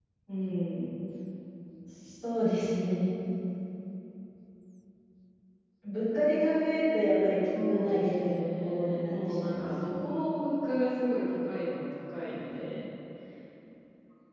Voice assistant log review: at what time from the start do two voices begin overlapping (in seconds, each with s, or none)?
7.5 s